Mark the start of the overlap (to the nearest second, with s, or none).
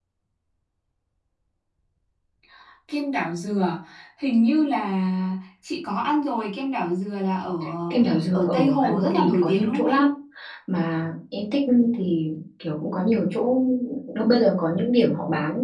8 s